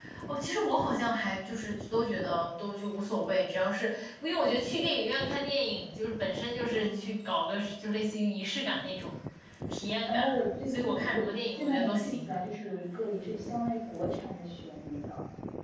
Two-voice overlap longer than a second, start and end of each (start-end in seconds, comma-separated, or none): 10.7-12.3